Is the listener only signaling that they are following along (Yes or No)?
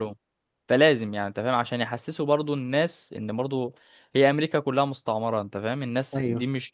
Yes